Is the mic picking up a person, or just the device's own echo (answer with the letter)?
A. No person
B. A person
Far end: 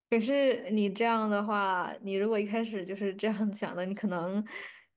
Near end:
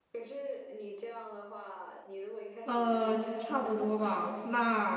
B